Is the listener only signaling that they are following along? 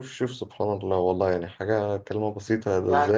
Yes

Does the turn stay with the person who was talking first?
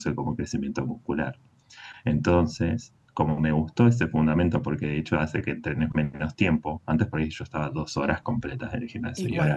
Yes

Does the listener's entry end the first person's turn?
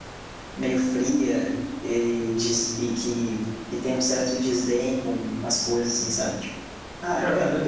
Yes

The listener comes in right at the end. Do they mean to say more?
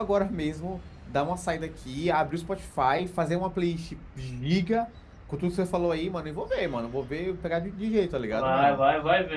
Yes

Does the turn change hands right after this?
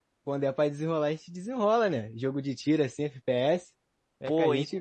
Yes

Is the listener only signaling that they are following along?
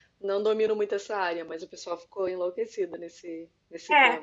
No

